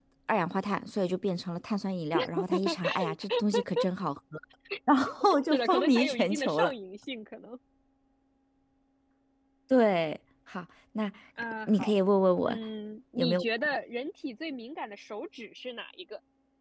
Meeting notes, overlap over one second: present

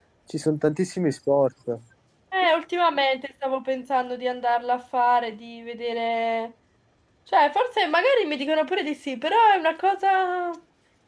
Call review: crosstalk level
none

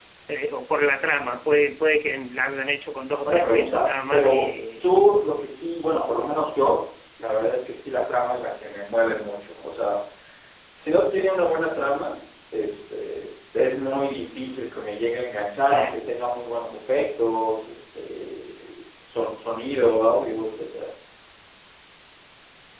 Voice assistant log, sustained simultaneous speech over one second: present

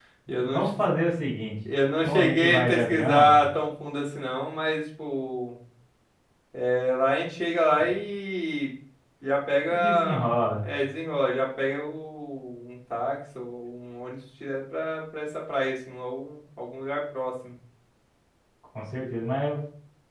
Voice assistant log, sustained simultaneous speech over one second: present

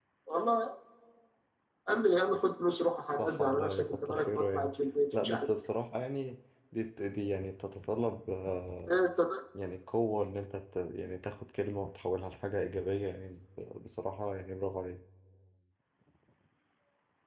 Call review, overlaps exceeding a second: present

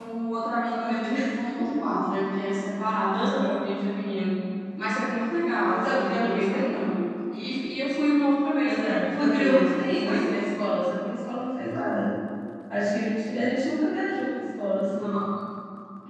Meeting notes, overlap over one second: present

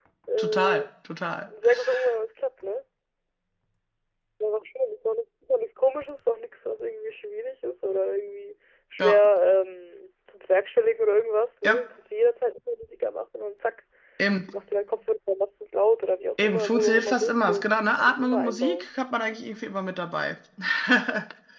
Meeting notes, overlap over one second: present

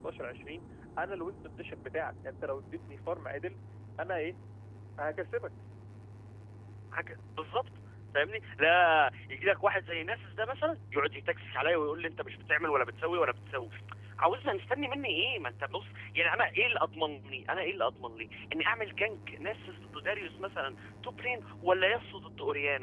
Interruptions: none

